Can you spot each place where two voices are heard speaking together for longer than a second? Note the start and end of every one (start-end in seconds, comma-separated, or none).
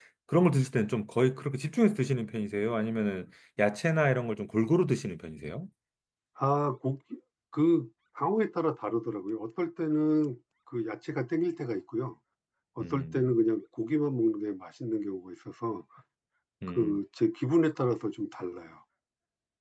none